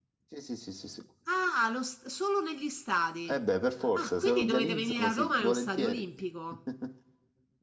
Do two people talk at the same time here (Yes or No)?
Yes